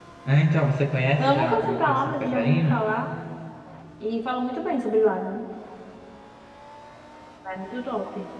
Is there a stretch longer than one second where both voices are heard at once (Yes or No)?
Yes